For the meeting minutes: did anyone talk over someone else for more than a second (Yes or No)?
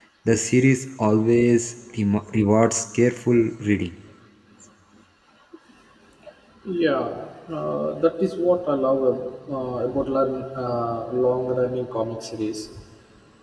No